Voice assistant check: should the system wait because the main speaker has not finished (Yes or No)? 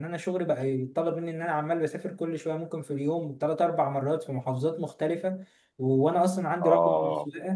Yes